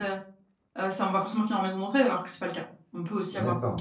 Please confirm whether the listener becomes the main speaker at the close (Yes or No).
Yes